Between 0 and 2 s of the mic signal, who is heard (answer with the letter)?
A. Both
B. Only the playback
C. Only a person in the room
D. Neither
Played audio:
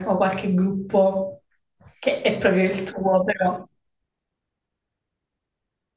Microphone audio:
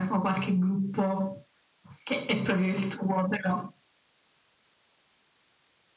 B